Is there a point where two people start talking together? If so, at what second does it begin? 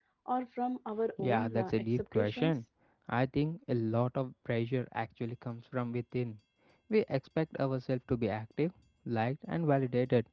1.2 s

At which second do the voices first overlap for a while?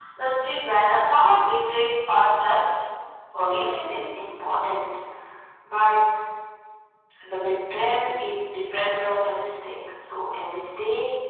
none

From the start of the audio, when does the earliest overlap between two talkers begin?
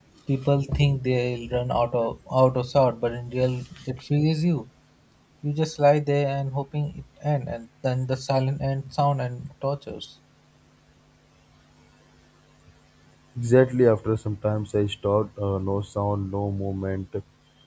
none

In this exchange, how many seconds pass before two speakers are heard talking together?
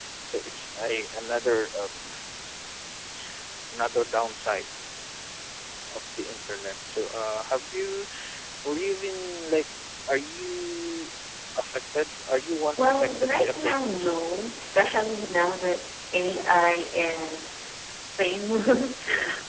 12.8 s

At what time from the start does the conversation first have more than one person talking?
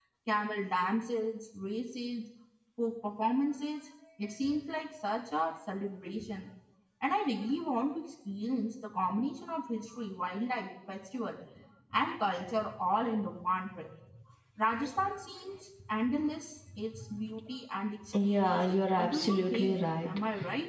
18.1 s

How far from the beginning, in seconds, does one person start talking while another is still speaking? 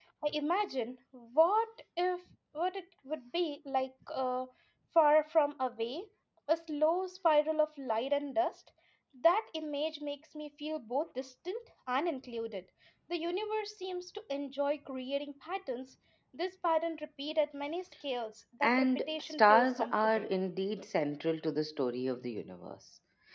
18.6 s

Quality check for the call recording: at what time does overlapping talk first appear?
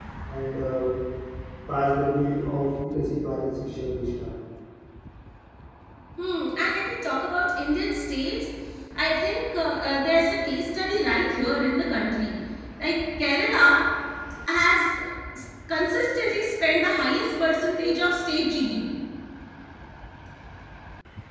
none

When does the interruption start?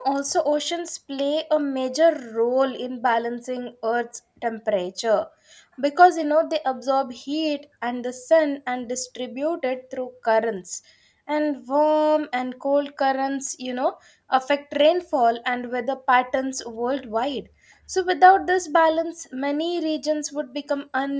none

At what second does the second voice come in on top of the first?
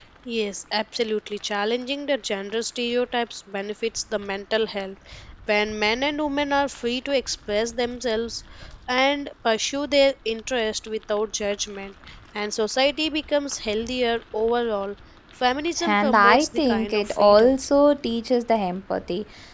15.8 s

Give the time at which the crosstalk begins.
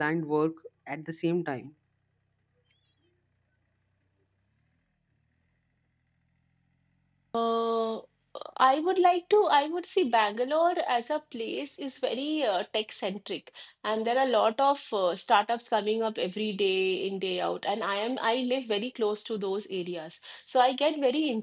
none

